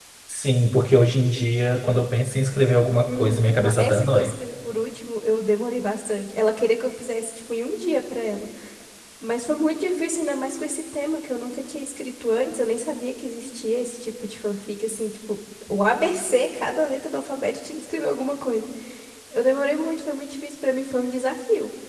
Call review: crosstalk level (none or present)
present